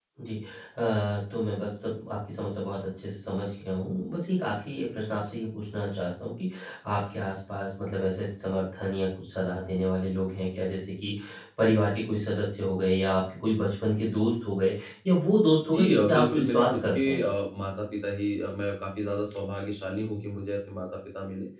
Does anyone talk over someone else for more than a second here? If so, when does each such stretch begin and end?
15.7-17.3

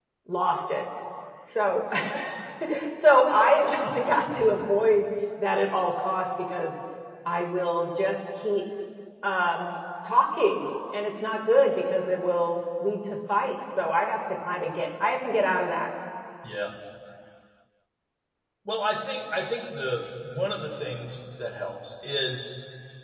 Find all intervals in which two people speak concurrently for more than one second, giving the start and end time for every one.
none

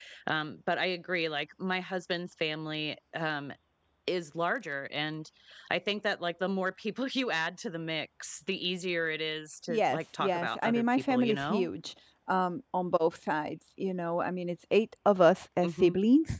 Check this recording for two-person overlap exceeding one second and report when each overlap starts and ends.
9.7-11.7

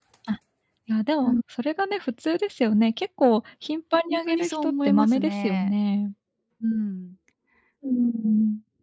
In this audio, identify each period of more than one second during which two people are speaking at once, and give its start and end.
4.1-5.7

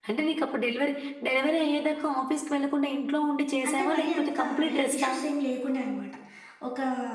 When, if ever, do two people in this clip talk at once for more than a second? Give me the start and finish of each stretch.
3.7-5.1

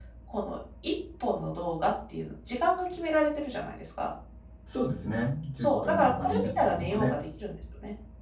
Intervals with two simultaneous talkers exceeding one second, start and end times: 5.6-7.1

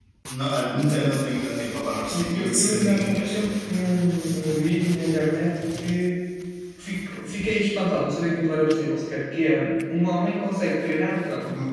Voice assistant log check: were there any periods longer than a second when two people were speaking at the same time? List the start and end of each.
2.1-3.4

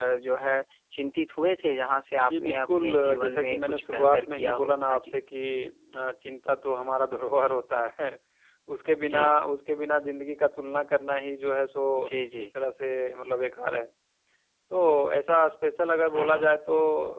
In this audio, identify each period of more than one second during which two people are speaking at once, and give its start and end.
2.3-5.1

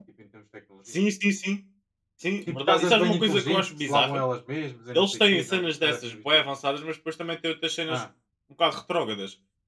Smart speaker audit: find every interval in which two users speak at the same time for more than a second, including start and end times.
2.5-4.2, 4.9-6.4

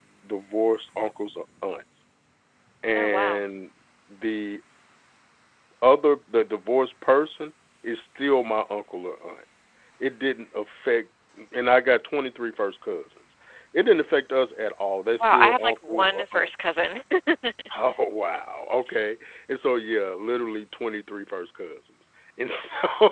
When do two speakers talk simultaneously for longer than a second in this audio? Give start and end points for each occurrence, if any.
15.2-16.5

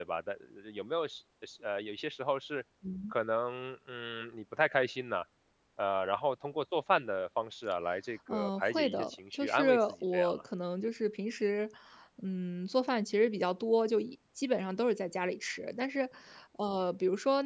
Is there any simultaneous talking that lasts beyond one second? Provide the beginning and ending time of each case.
8.3-10.4

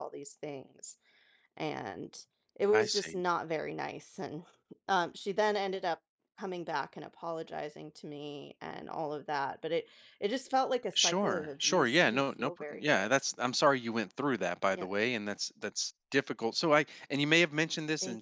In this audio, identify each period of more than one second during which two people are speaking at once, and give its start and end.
11.0-13.1

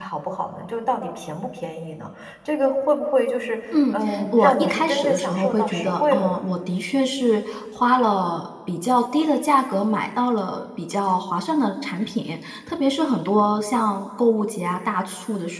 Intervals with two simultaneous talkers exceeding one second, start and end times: 3.9-6.4

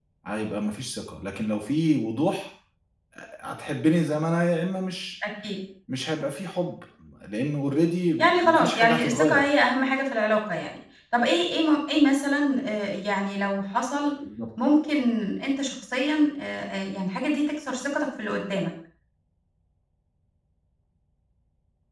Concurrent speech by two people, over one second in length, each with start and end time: 8.2-9.5

